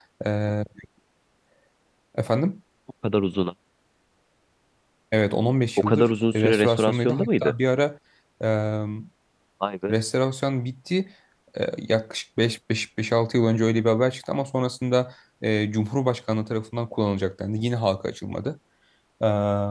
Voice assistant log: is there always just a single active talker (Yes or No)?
No